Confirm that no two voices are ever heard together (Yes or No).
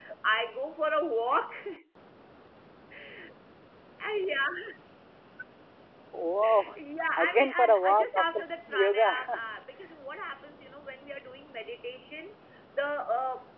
No